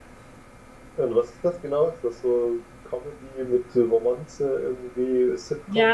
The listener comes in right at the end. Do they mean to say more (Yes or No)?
Yes